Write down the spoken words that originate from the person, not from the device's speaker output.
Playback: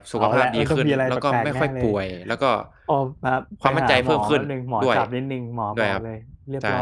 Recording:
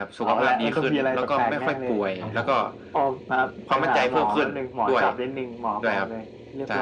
ครับผม

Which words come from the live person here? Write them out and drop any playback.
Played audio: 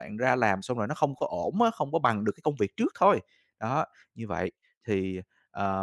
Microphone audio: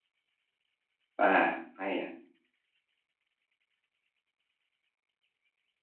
À, à, hay nè.

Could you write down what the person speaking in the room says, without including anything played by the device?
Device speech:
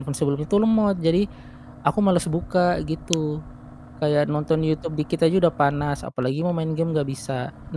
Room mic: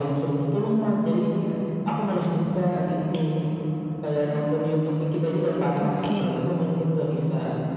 oke,

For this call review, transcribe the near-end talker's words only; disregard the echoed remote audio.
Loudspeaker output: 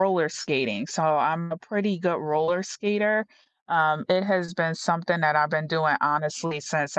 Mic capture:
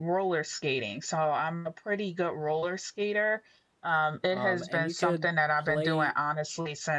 um, and you could play

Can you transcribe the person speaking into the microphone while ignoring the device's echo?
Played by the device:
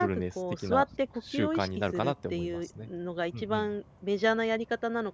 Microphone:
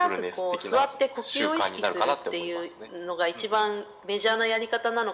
none

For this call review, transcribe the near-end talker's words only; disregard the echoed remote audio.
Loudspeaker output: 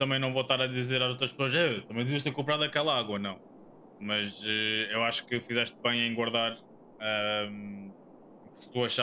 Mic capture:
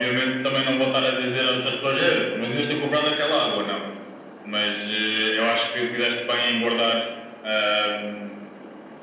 none

